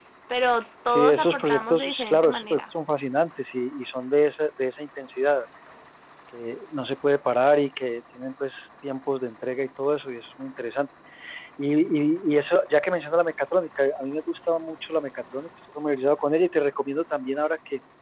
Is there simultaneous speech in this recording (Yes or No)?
Yes